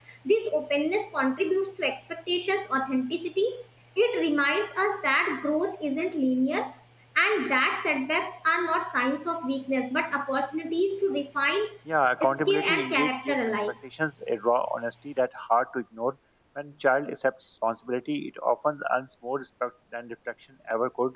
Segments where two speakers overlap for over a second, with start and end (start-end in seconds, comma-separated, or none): 12.2-13.5